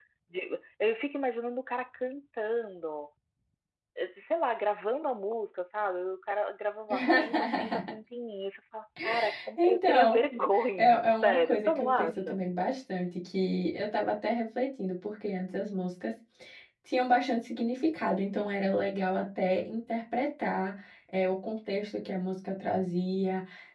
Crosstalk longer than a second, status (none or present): present